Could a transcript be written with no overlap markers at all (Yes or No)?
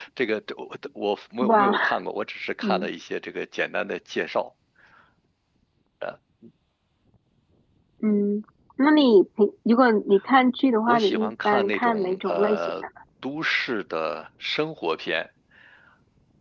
No